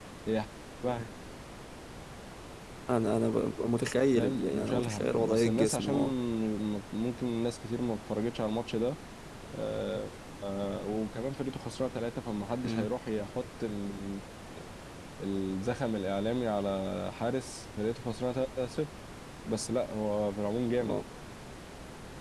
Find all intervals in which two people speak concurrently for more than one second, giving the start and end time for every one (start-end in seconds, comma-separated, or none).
4.2-5.9